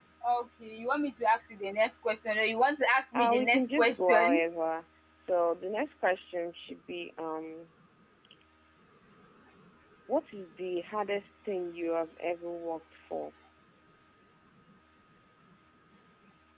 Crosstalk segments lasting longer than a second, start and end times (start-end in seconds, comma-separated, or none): 3.1-4.5